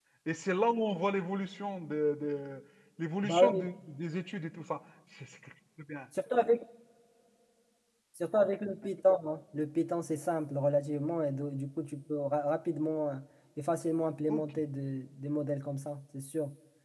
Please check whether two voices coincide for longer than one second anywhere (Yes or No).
No